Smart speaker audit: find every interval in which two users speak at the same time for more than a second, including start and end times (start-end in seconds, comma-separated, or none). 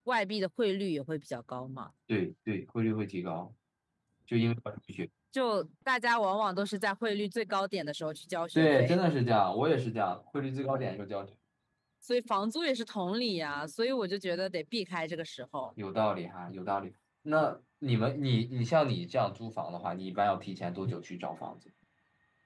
none